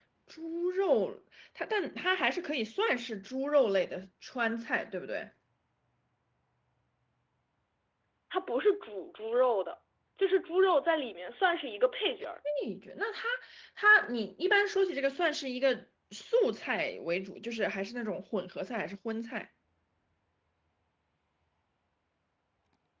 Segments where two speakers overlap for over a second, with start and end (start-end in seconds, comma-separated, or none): none